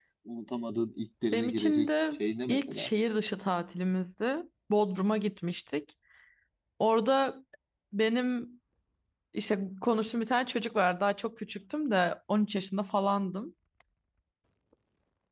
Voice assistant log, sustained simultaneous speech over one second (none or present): present